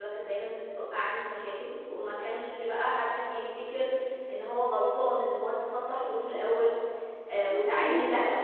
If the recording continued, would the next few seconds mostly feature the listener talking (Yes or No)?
Yes